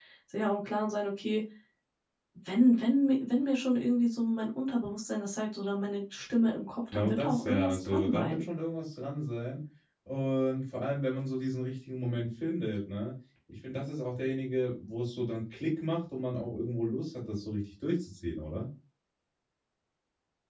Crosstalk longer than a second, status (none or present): present